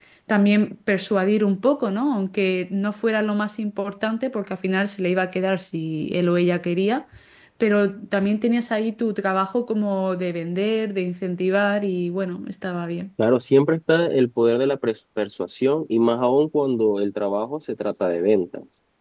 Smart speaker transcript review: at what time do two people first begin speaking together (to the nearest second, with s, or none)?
none